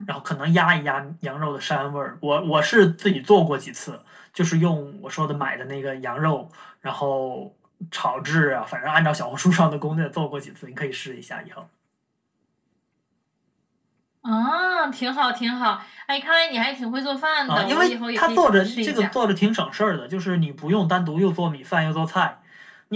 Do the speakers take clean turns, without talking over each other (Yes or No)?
No